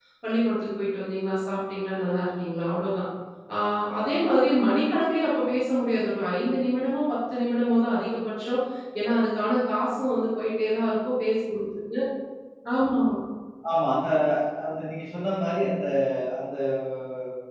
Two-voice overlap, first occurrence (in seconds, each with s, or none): none